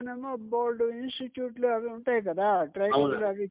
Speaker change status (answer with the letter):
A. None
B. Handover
A